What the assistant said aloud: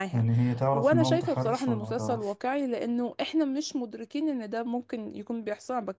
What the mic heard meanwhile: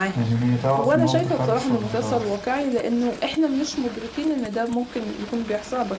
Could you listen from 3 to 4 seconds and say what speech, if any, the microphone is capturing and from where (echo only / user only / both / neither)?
echo only